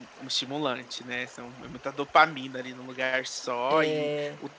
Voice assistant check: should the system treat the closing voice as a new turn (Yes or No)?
No